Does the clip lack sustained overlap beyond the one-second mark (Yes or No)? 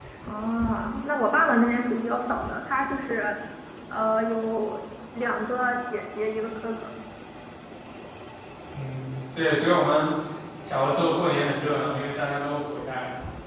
Yes